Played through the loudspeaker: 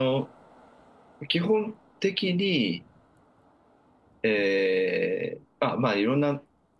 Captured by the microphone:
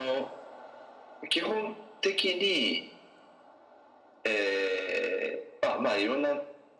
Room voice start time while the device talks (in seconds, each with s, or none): none